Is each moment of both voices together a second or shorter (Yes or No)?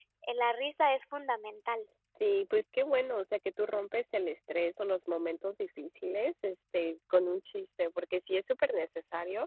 Yes